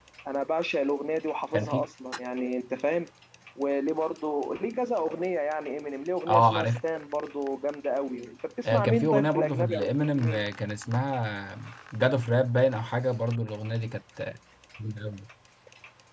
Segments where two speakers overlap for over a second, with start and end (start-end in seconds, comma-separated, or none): 8.6-10.4